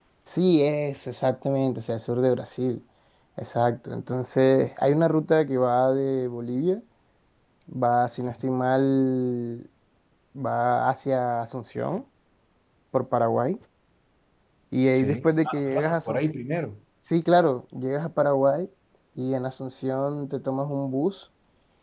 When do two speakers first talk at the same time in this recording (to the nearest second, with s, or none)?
15 s